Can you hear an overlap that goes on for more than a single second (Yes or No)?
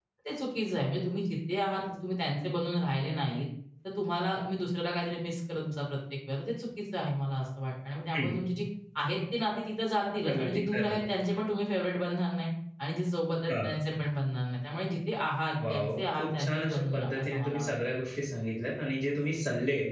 Yes